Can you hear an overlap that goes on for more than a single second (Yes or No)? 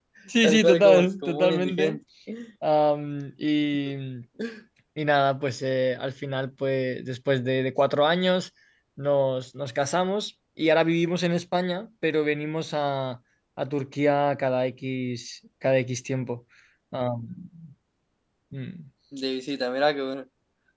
Yes